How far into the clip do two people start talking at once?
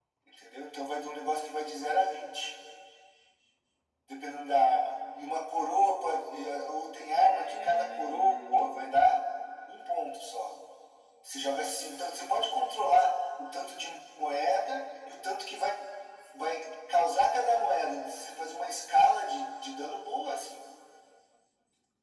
7.0 s

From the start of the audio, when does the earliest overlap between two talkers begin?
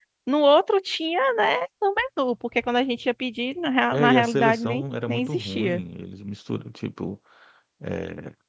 3.9 s

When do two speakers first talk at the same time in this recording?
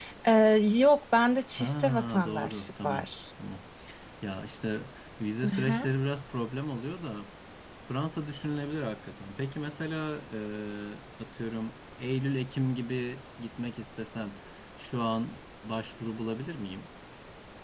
1.6 s

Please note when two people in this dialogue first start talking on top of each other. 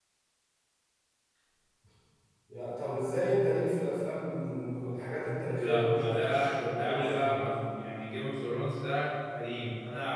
5.5 s

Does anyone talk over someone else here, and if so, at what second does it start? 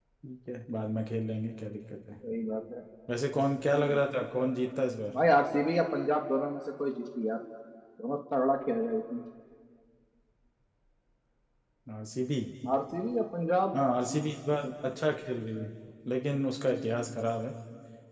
none

